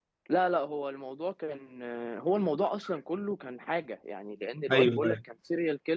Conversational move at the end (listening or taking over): listening